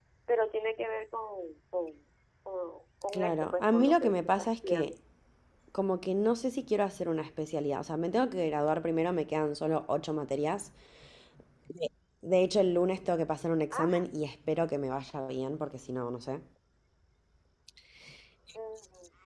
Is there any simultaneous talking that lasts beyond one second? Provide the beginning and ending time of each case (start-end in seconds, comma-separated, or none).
3.1-4.9